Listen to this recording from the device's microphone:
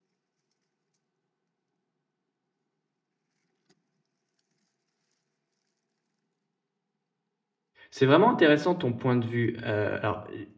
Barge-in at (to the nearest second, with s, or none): 8 s